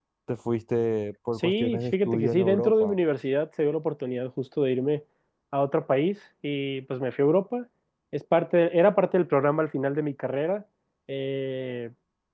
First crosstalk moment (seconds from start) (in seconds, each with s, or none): 1.4 s